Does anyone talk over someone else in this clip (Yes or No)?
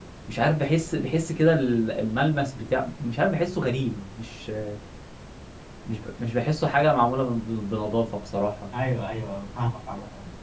No